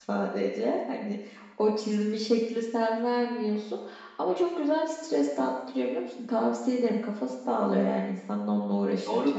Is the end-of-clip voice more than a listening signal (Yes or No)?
Yes